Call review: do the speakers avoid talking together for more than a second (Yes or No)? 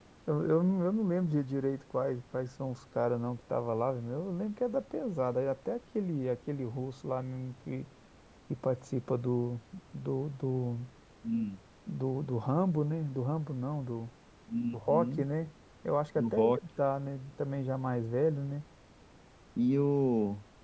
Yes